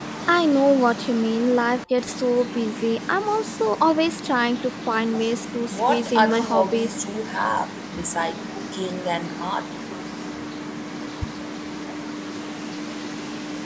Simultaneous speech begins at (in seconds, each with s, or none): 5.7 s